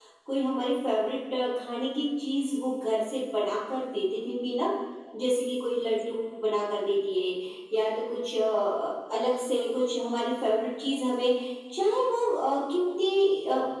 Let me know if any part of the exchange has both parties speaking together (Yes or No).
No